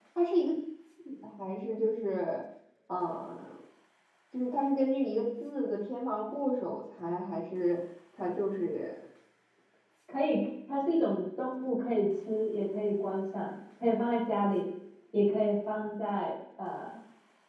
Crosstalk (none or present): none